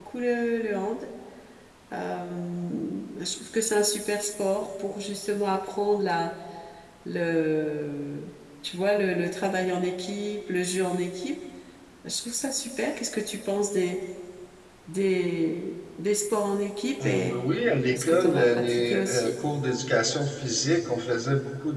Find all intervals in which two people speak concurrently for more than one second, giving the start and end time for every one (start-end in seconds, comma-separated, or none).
17.9-19.3